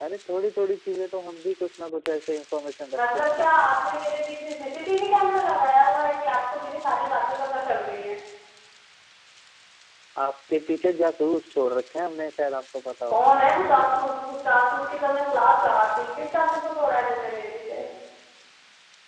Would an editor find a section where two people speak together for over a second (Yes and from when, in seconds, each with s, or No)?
No